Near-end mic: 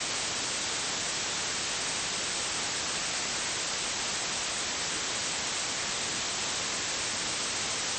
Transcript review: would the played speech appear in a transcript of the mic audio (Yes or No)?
No